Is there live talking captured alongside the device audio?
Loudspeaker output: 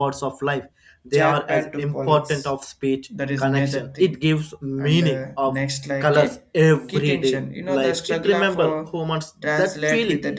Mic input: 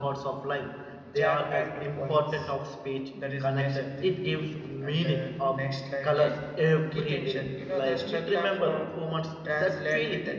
No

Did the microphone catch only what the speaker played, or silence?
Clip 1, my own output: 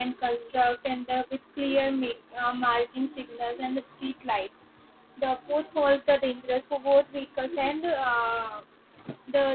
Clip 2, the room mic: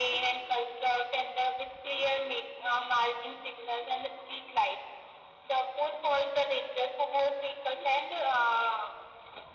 Yes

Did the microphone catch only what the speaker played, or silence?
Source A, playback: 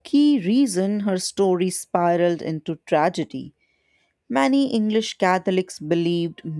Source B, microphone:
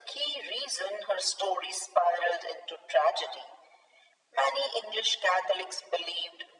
Yes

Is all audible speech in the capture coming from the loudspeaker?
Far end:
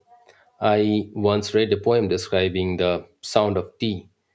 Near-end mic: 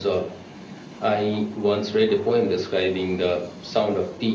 Yes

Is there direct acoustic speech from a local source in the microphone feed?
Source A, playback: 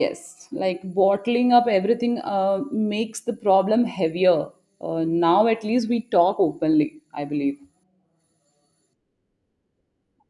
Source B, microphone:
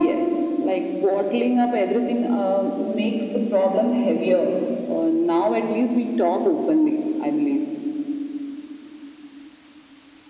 No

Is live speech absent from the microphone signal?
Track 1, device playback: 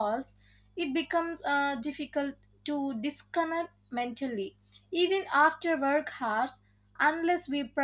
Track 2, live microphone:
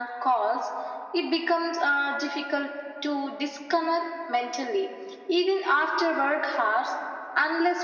Yes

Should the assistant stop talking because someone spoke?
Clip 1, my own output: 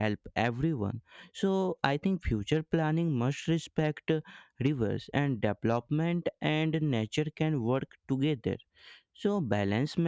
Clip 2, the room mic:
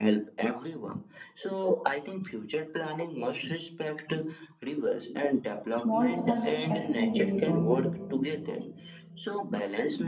Yes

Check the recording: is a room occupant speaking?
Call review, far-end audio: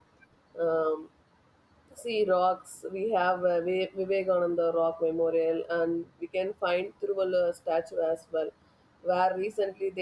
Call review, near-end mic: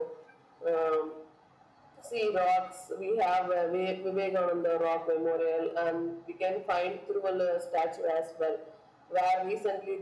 No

